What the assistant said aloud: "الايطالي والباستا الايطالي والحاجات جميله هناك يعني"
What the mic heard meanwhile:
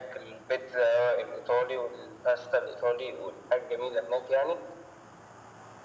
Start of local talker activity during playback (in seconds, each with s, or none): none